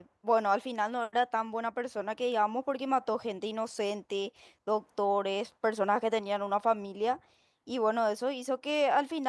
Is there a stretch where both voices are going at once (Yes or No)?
No